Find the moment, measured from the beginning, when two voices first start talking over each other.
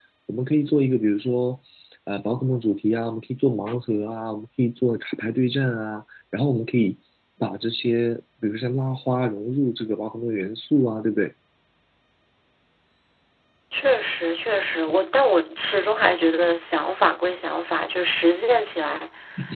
none

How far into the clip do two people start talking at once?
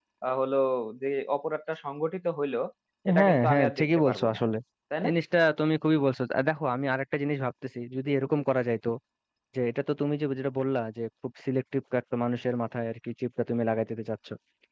3.2 s

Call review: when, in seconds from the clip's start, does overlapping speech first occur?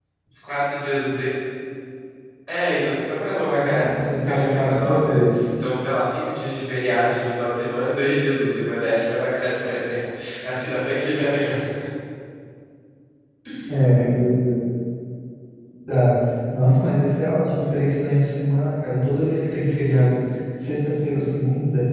3.6 s

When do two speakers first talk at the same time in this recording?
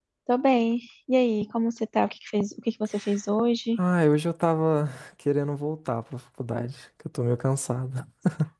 none

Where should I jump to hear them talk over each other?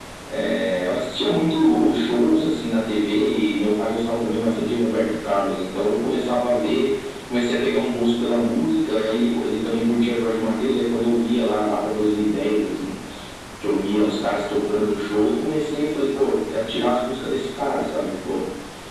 none

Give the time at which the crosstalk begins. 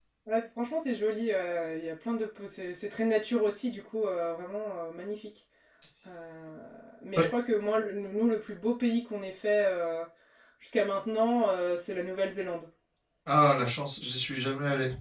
none

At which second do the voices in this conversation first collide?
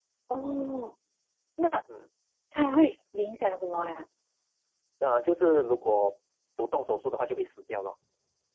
none

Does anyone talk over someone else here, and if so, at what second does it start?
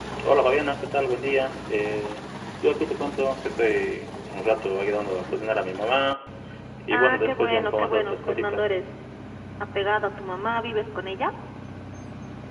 6.9 s

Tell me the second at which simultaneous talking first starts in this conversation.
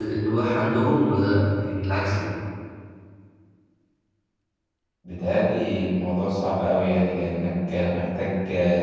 none

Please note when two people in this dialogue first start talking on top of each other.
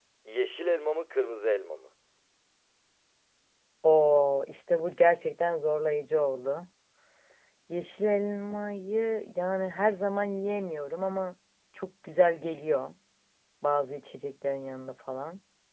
none

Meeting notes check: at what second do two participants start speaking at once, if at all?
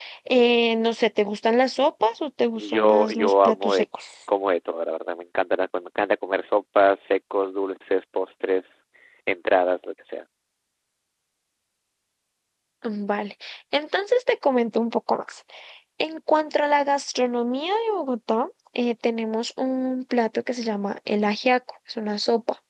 2.5 s

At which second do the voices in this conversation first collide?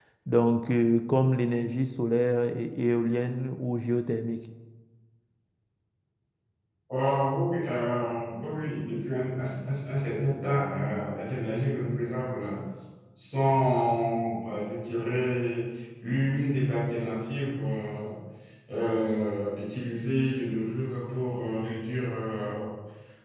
none

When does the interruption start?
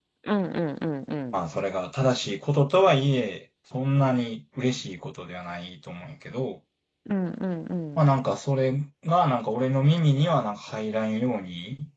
none

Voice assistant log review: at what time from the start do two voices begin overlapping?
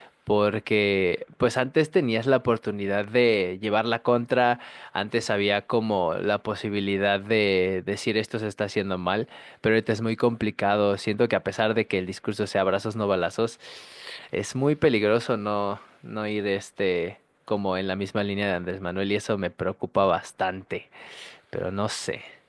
none

